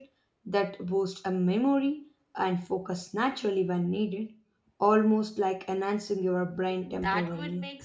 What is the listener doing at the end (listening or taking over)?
taking over